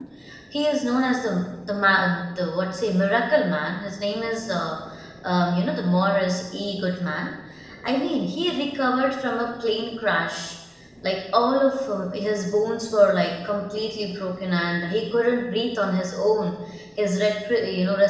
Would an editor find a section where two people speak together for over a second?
No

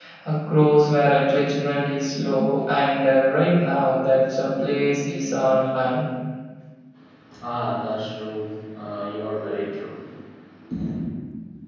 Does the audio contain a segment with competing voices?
No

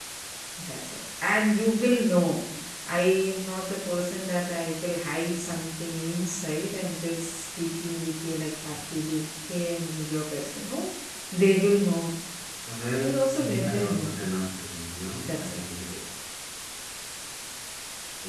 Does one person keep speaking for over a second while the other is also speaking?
No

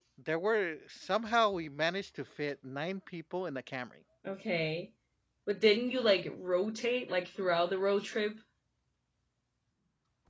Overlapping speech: No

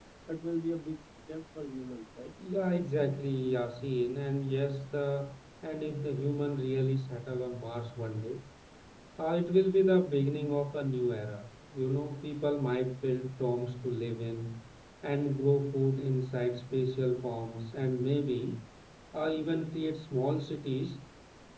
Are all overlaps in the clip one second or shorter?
Yes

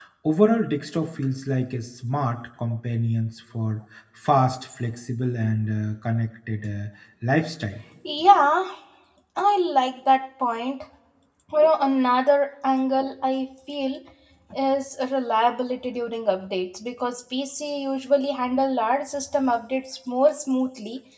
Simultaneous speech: No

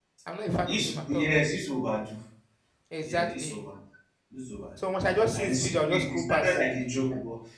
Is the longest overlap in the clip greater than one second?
Yes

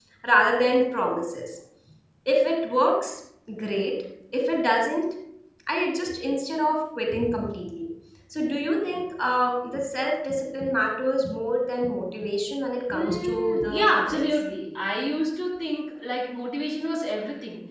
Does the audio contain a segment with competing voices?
Yes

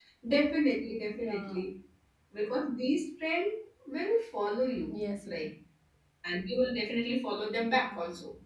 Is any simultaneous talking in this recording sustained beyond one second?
No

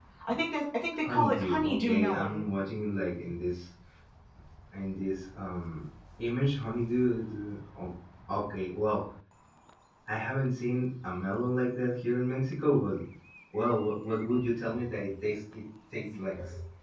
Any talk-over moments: Yes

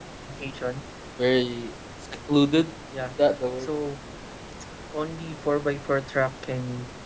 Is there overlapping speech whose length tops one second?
No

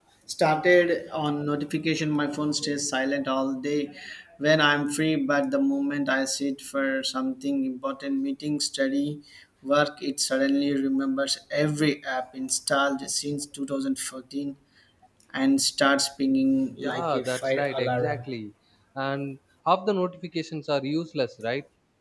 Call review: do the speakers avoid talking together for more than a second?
No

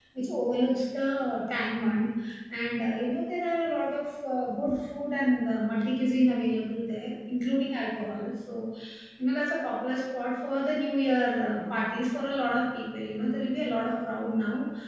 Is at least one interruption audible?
No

